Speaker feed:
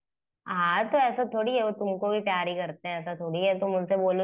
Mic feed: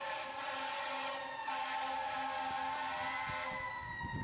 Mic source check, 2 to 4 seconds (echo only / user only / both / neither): neither